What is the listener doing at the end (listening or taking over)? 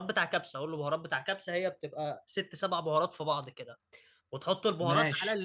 listening